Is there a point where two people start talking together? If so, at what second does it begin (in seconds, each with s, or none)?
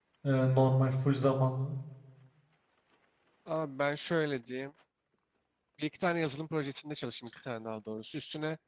none